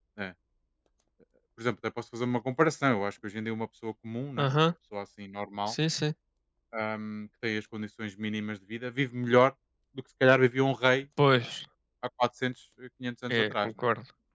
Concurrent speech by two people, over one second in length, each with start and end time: none

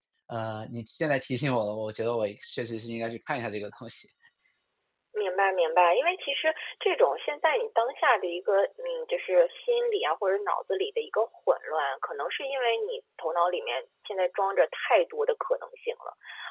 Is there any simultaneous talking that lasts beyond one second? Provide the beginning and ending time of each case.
none

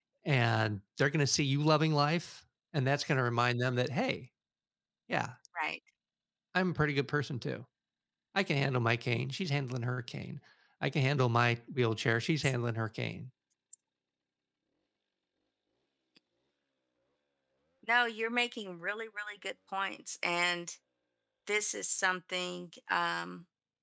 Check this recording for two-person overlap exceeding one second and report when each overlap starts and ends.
none

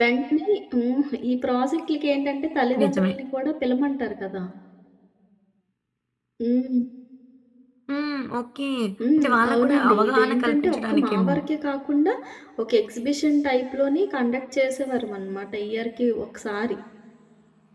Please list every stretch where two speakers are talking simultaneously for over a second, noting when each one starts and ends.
9.2-11.4

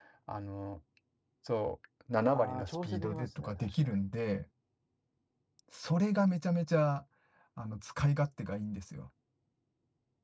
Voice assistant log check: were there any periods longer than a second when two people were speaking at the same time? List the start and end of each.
2.3-4.0

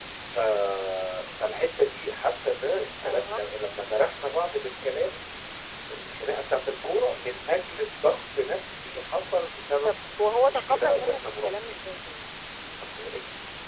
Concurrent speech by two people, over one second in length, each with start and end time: 10.3-11.8

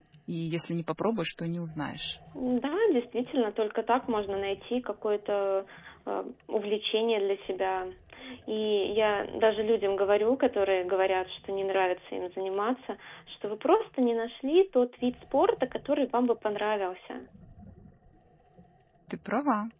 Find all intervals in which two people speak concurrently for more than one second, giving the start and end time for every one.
none

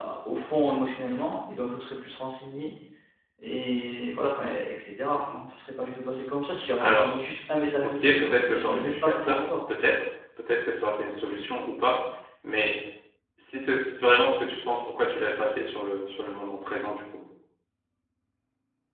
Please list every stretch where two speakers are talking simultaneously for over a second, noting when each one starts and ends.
7.8-9.5

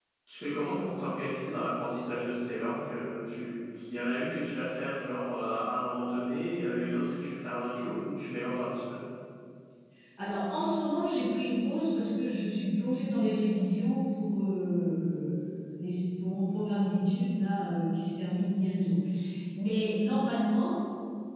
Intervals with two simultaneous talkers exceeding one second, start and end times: none

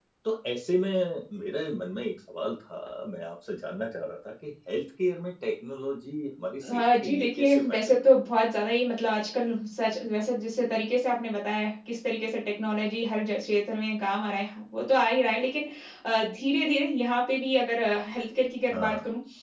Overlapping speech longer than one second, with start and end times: 6.7-8.0

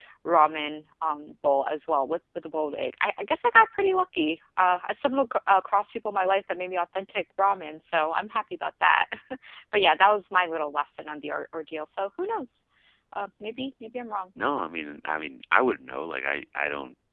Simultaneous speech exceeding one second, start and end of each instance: none

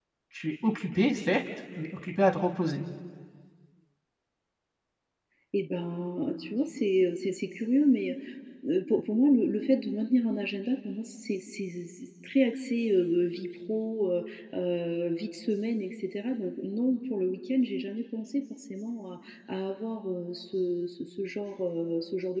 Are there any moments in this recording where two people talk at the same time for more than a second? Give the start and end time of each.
none

